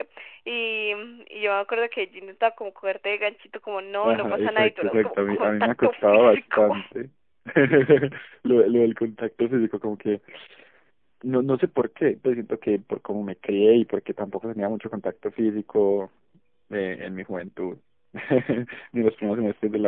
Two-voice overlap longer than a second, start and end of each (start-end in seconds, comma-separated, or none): 4.0-6.8